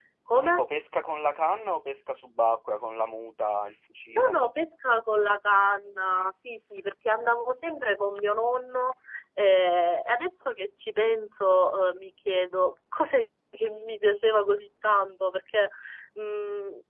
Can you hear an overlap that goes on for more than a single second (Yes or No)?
No